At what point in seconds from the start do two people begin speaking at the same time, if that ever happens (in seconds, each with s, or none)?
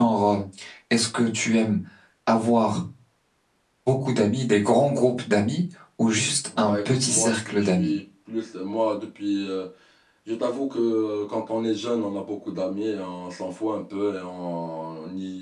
6.5 s